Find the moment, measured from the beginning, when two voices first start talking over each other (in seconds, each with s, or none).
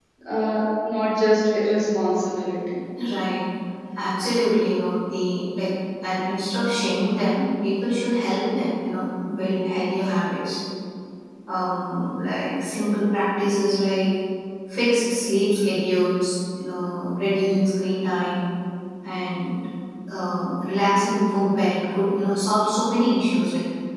none